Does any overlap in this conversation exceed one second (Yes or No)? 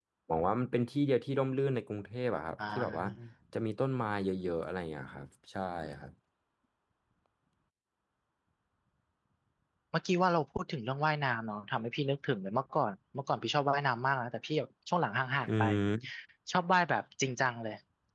No